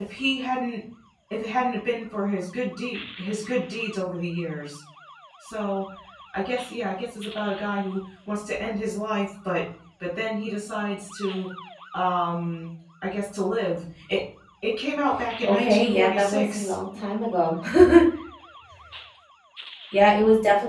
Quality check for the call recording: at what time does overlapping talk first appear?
15.4 s

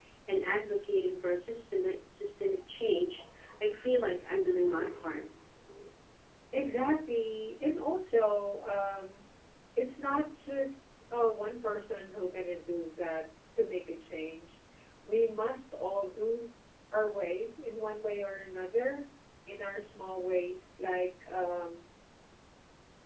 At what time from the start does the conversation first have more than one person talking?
none

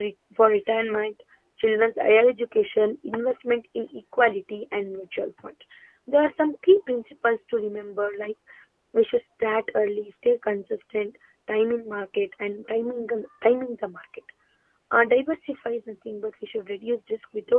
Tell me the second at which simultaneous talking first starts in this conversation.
none

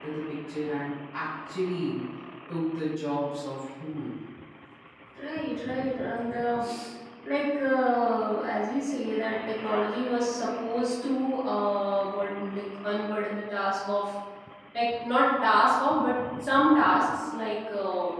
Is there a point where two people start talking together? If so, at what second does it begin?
none

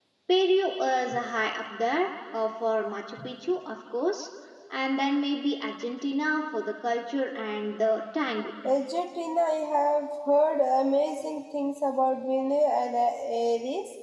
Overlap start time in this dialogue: none

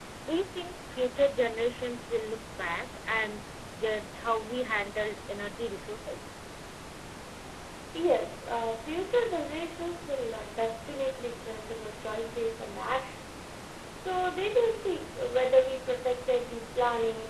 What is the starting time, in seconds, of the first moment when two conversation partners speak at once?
none

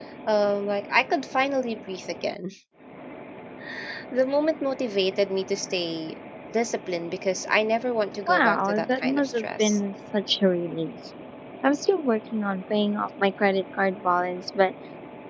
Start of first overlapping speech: 8.3 s

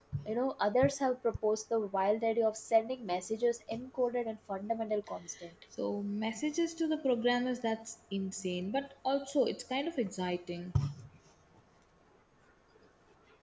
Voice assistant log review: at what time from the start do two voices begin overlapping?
none

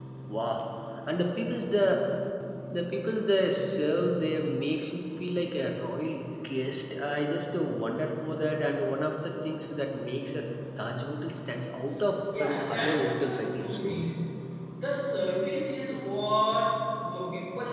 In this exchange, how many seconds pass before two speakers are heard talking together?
12.3 s

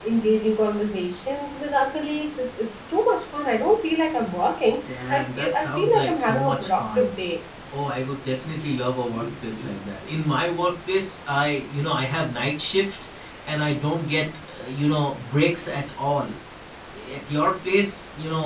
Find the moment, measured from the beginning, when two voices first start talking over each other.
4.9 s

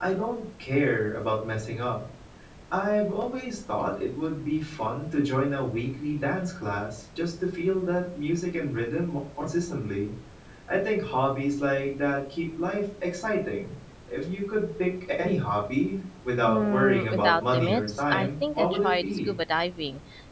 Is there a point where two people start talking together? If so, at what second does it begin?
16.2 s

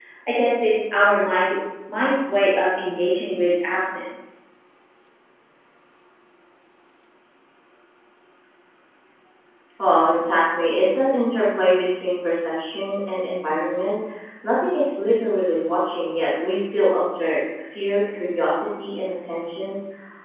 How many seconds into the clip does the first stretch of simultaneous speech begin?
none

